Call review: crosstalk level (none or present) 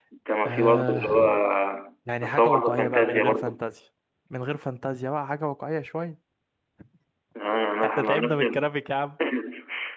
present